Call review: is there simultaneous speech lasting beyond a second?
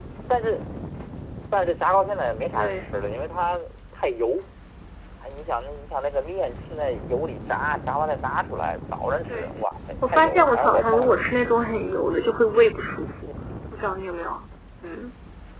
Yes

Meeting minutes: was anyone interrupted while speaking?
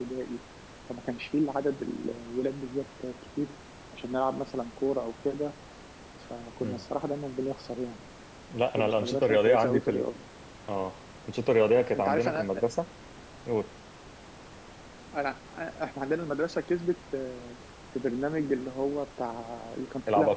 Yes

